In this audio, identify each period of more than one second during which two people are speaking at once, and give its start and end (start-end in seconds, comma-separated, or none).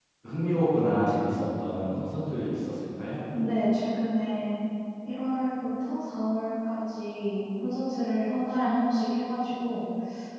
none